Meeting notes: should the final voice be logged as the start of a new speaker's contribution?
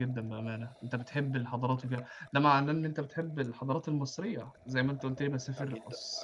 Yes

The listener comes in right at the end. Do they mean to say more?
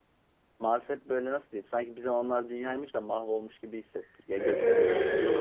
Yes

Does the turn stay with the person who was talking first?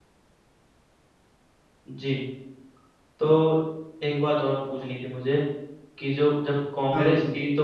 Yes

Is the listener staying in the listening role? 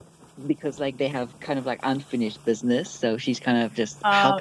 No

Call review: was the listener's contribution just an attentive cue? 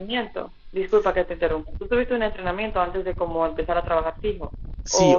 No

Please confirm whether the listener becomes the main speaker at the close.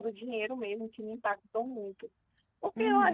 Yes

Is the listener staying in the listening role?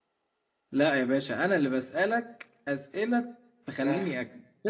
No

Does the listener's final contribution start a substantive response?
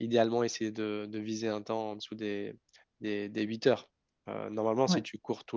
No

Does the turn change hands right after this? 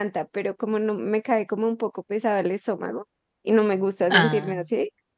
No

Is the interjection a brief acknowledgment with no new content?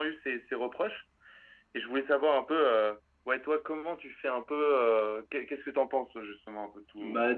No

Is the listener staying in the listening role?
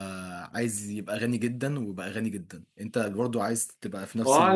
No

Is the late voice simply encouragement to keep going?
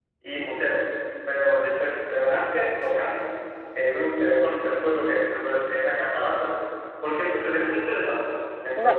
No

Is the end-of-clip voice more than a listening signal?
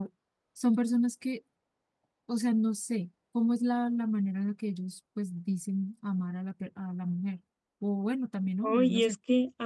Yes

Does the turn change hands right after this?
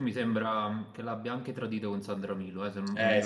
Yes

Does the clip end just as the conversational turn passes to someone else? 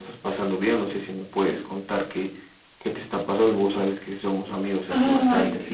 No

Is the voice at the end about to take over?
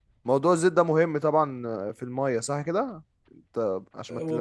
Yes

